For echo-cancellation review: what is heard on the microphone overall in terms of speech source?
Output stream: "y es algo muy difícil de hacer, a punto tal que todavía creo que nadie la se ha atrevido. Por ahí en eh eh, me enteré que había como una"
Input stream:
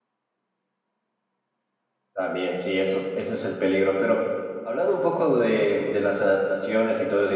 user only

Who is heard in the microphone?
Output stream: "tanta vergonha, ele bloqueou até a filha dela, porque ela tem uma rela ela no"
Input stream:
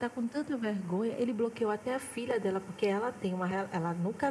echo only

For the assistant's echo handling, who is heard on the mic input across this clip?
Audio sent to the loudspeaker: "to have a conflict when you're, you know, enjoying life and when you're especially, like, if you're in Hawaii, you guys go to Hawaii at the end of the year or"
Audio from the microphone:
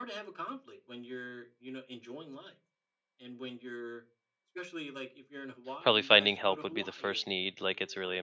both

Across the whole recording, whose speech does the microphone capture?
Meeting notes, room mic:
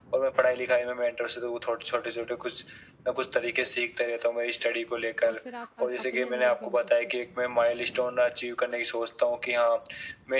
both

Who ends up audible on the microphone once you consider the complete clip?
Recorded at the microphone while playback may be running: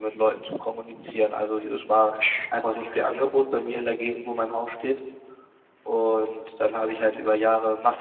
both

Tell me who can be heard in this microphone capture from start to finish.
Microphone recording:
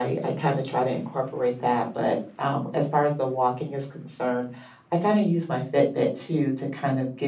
echo only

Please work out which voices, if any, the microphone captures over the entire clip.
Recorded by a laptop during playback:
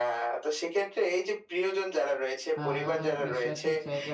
both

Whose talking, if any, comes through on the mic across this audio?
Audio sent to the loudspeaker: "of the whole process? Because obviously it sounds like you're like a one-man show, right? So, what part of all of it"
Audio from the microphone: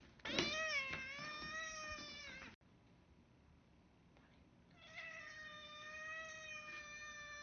neither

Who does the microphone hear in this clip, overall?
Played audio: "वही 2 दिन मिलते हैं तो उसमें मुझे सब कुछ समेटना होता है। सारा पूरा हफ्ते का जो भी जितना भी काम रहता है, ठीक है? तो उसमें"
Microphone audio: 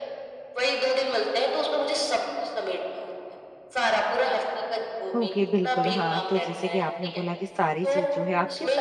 both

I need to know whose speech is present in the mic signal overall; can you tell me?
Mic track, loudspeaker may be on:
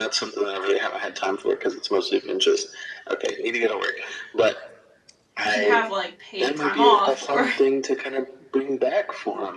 both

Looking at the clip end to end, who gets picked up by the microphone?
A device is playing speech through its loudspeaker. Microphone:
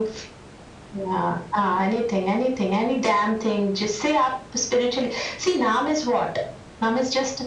echo only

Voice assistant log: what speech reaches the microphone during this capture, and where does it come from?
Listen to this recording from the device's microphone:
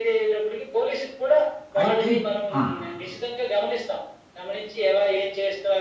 both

